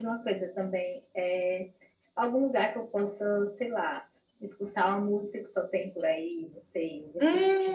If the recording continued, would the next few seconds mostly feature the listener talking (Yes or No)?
Yes